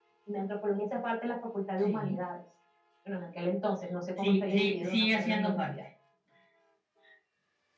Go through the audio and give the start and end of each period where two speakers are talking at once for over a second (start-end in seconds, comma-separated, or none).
4.2-5.7